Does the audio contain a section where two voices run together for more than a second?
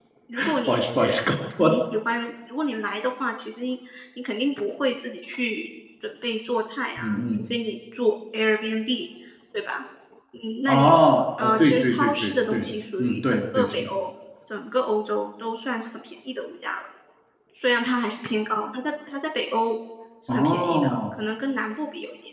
Yes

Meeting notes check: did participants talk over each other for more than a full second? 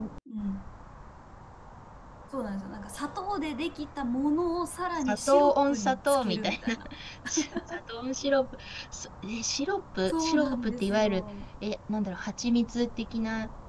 Yes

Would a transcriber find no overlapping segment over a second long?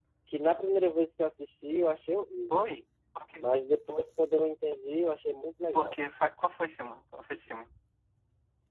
Yes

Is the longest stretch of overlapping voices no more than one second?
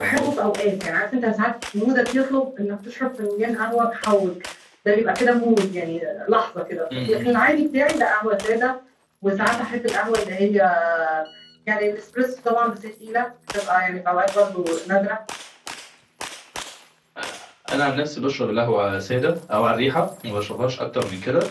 Yes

